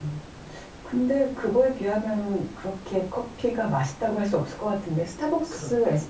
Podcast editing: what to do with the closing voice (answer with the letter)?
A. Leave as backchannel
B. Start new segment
A